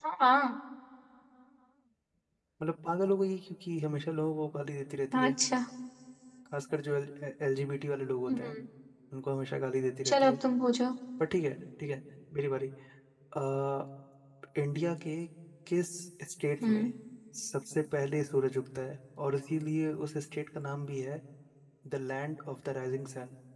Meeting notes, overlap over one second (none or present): none